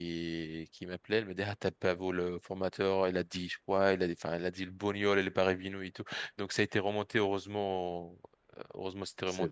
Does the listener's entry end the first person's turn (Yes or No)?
No